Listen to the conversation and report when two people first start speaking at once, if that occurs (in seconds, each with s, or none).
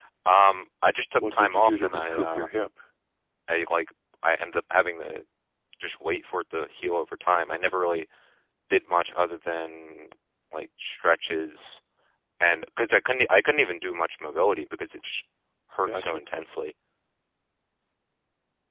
1.2 s